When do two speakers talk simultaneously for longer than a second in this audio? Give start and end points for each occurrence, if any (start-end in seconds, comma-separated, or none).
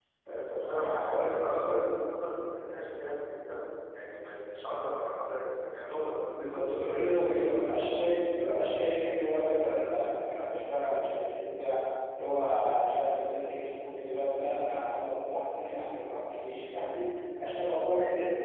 0.6-1.9, 6.3-8.0